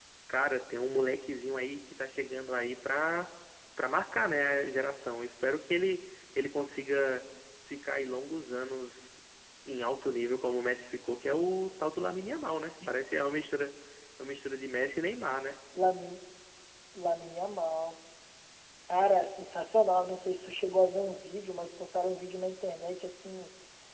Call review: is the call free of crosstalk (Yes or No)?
Yes